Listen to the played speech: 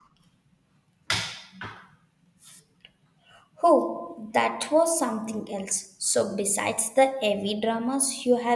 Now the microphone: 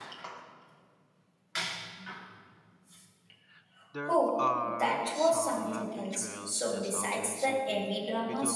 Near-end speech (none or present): present